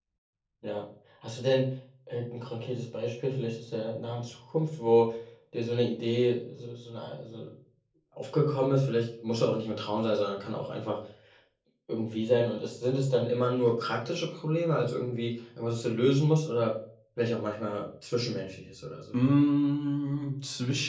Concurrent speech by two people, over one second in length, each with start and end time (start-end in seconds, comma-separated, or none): none